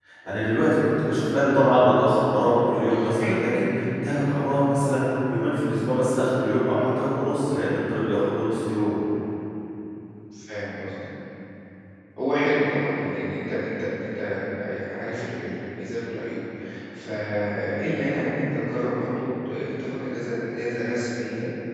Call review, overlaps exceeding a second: none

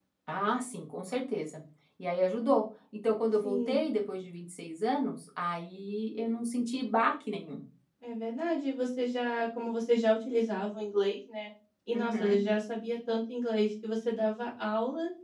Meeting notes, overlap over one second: none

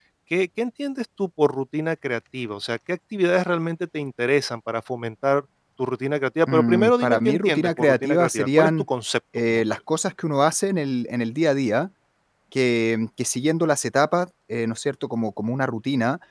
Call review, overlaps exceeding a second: present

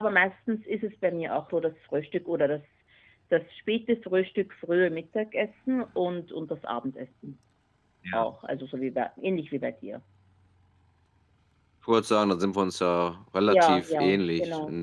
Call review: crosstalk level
present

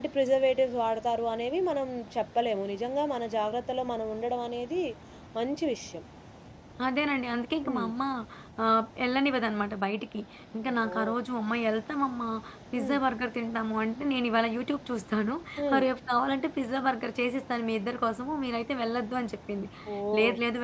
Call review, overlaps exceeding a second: none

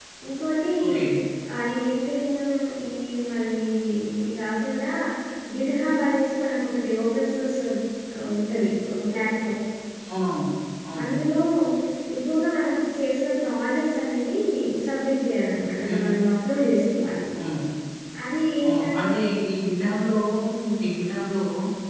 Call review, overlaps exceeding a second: none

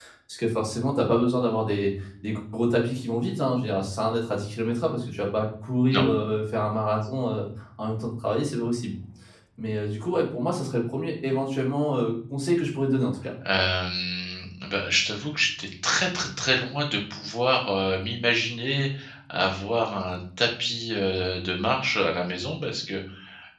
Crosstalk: none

